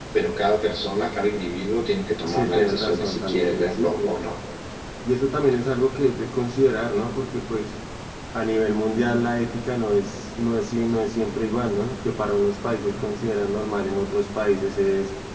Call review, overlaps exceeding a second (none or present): present